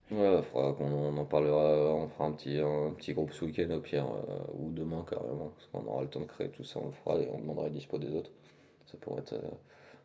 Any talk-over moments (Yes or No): No